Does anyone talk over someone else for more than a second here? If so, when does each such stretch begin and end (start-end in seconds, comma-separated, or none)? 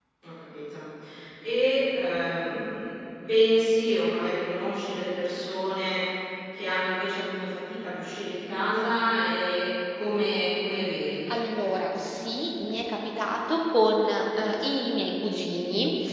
none